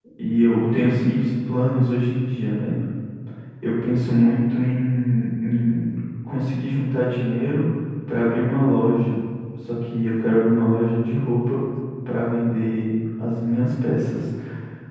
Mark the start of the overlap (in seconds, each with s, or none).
none